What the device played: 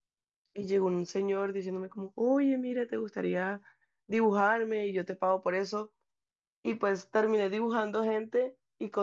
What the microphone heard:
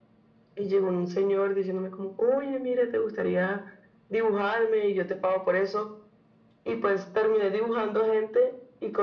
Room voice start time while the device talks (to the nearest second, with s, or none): none